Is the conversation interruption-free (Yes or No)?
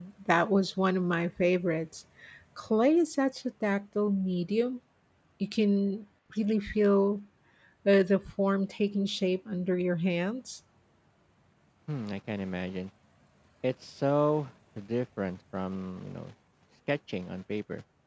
Yes